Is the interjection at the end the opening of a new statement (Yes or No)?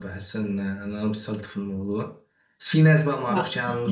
No